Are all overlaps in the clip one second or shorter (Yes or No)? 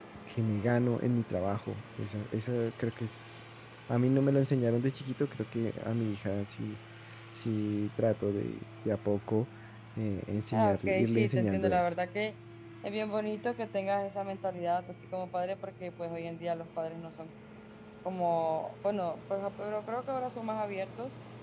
No